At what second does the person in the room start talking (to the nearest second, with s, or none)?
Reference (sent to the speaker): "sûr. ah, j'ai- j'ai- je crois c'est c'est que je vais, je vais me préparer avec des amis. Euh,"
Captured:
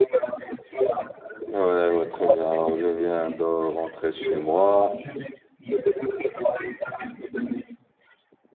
1 s